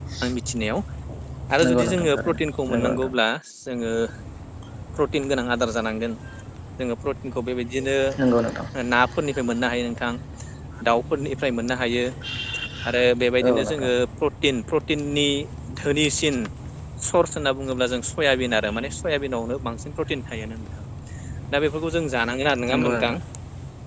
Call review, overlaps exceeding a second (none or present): present